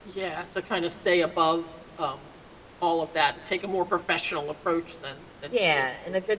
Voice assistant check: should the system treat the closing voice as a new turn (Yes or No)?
Yes